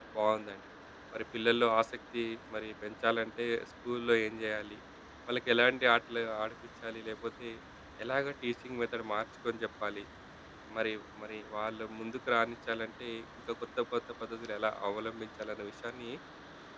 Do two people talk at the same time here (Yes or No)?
No